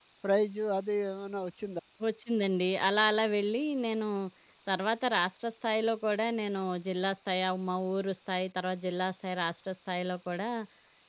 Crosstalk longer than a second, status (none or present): none